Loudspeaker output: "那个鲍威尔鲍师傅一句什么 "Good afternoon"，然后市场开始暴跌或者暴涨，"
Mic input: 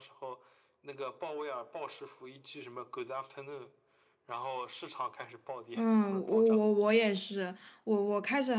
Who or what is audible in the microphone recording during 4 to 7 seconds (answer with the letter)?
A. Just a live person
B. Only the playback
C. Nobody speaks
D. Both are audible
D